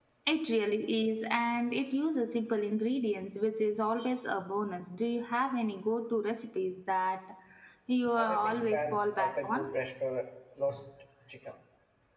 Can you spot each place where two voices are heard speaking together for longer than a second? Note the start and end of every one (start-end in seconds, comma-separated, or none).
8.2-9.7